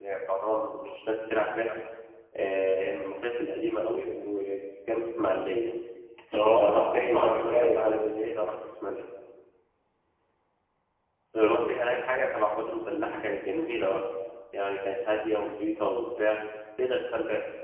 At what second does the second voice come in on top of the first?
6.6 s

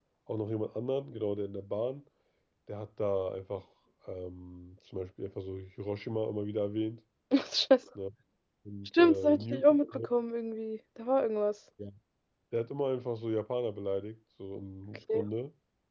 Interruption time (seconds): 8.8 s

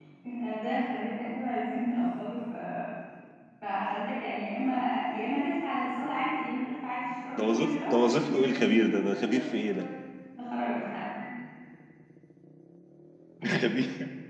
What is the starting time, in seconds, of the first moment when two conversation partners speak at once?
7.4 s

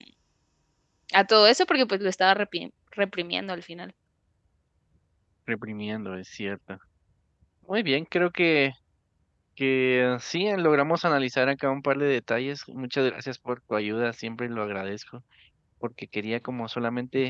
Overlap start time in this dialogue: none

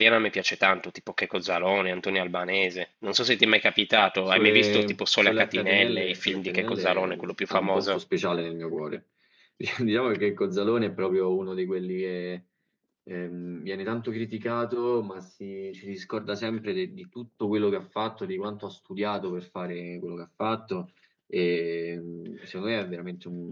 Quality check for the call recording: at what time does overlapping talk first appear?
4.3 s

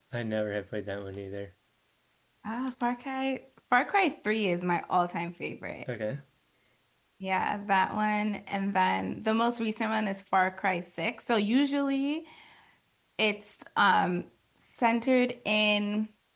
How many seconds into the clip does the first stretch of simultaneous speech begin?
none

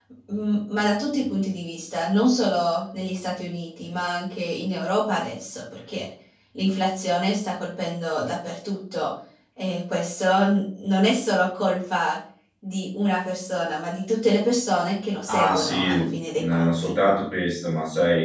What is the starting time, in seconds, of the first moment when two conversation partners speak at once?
15.3 s

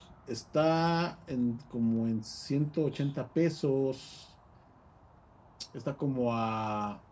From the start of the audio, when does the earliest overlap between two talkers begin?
none

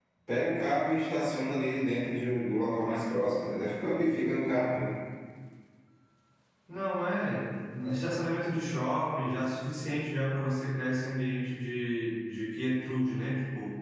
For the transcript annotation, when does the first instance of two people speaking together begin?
none

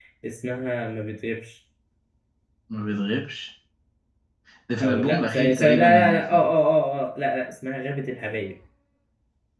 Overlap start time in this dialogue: 4.8 s

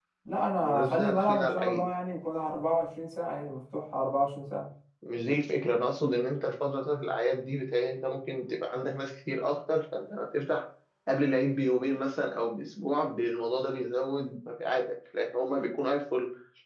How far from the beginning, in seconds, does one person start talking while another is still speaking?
0.6 s

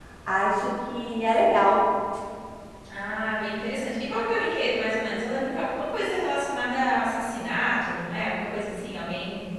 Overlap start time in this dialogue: none

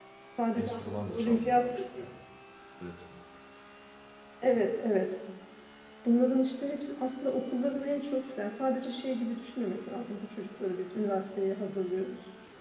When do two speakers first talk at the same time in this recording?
0.6 s

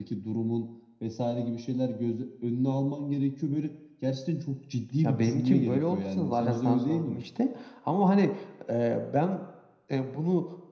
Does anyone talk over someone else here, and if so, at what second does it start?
5.0 s

